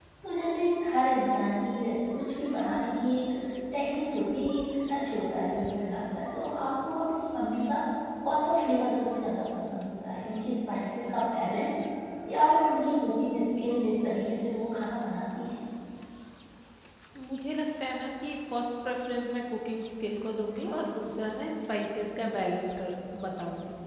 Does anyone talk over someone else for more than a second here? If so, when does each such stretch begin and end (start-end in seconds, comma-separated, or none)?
none